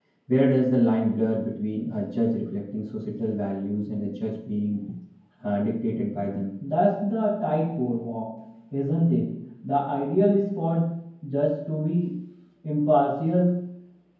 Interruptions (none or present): none